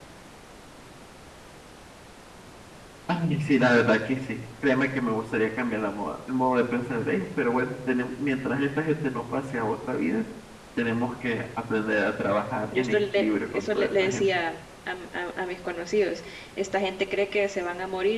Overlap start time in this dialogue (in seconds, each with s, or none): 12.7 s